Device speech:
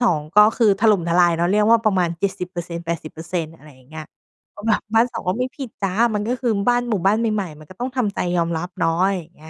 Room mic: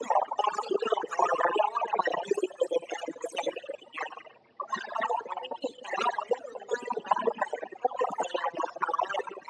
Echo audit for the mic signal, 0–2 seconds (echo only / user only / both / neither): echo only